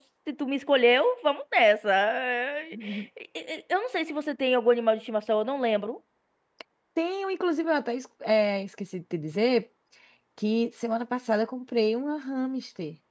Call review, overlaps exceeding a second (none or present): none